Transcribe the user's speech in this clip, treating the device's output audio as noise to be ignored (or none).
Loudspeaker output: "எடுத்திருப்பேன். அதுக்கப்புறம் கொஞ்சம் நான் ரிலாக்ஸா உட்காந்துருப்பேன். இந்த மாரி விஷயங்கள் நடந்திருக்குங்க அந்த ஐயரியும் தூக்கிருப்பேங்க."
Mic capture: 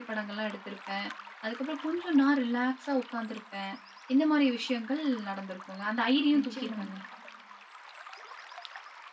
நிச்சியமாங்க.